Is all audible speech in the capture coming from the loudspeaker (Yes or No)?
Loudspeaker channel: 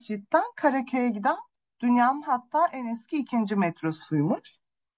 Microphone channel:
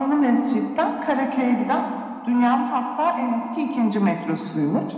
Yes